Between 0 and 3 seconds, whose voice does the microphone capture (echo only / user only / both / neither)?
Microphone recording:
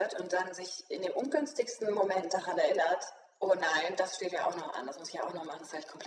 echo only